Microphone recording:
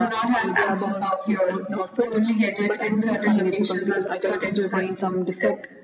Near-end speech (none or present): none